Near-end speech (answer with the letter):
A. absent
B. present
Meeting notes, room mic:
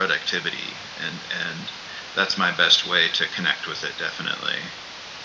A